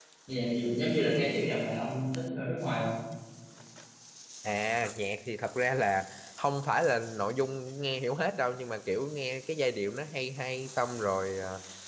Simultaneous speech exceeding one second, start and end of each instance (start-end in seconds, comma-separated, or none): none